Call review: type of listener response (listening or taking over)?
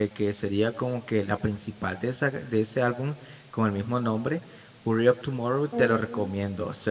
listening